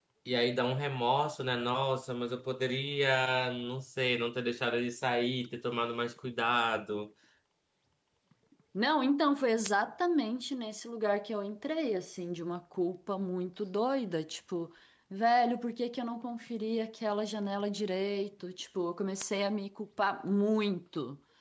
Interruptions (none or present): none